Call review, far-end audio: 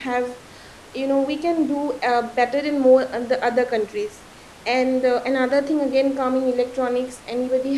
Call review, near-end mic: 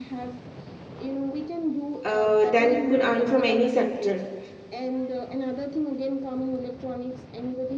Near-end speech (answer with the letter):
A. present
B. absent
A